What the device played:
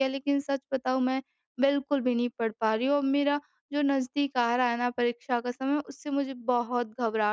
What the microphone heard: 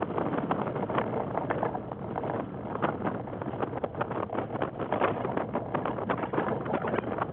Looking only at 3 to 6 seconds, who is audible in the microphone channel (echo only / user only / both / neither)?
neither